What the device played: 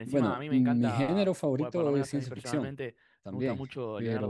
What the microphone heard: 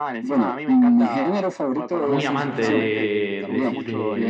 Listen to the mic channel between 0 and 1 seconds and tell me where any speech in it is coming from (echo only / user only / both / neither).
echo only